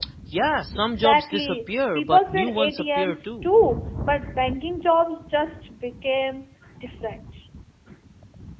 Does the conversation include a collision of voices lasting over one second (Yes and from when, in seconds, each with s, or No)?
Yes, from 0.9 s